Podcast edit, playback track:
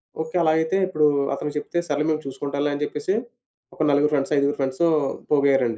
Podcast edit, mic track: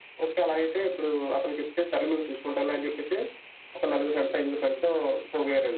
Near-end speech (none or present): none